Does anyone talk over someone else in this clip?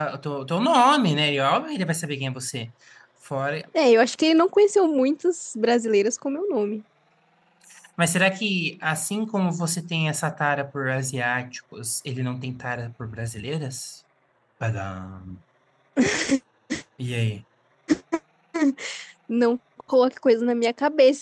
No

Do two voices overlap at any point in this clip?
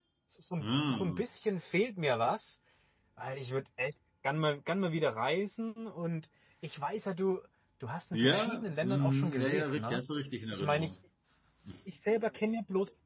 Yes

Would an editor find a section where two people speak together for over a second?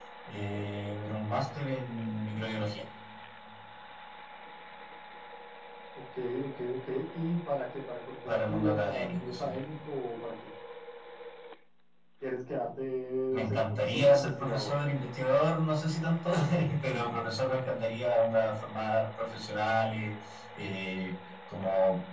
Yes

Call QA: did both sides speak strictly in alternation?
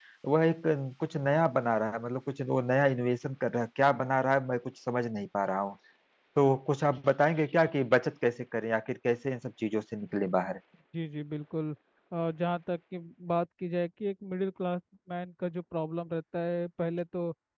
Yes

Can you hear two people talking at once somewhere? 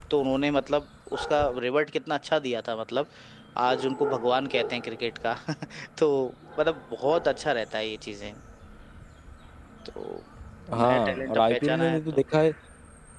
Yes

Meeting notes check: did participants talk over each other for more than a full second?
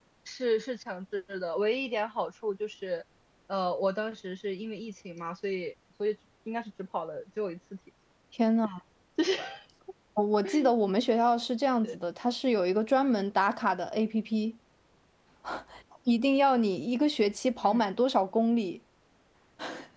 No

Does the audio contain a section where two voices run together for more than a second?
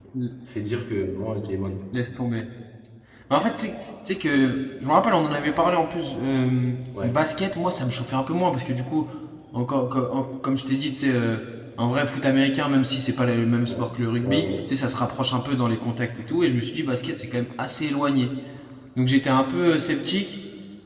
No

